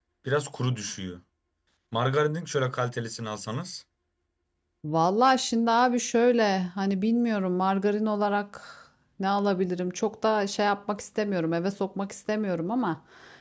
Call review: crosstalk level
none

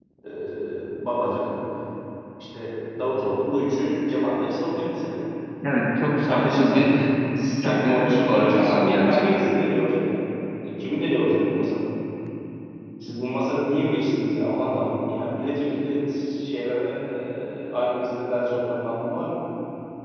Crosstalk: present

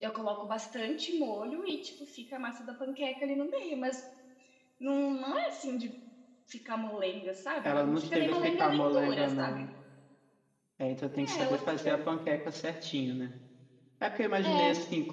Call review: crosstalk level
present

